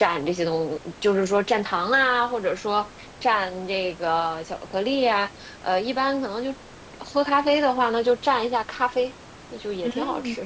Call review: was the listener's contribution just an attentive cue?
No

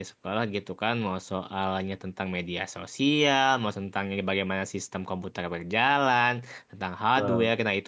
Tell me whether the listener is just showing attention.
Yes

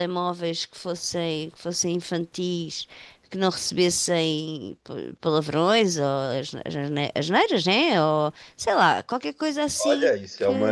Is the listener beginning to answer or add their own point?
Yes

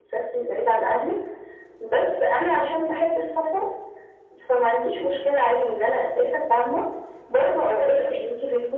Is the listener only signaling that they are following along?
Yes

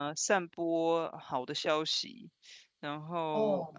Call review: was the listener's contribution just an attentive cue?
Yes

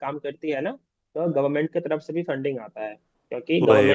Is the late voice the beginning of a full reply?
No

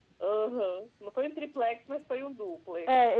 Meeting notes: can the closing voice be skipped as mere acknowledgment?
No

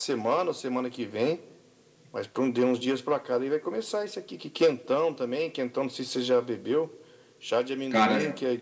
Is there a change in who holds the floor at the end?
No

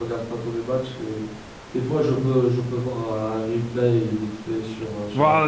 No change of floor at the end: No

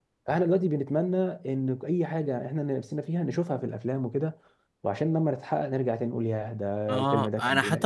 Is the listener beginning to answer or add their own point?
Yes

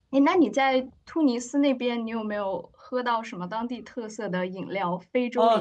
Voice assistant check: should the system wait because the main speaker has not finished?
No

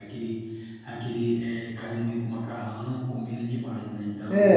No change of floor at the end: No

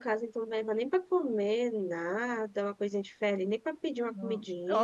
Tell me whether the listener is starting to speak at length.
Yes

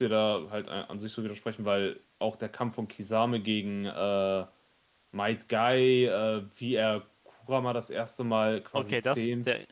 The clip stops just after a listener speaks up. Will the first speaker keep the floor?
No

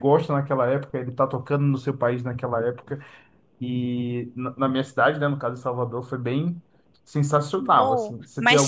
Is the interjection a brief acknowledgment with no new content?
No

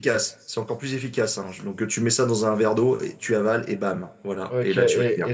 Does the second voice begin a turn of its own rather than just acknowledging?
Yes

